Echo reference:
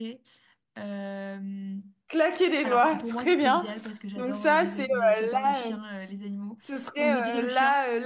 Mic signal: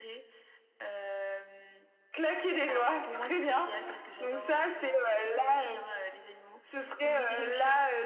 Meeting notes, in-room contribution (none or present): none